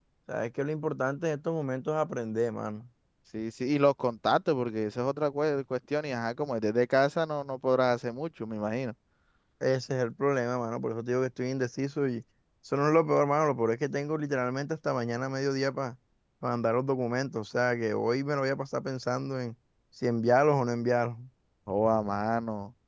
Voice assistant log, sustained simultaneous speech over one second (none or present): none